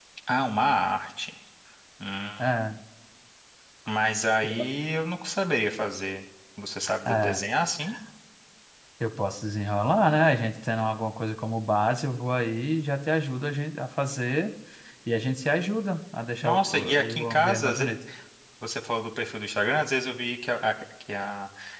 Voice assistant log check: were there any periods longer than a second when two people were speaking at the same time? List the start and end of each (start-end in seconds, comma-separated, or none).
16.4-17.7